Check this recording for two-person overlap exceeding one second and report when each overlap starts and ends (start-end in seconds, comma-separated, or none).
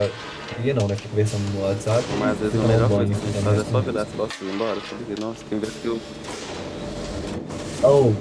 2.1-4.2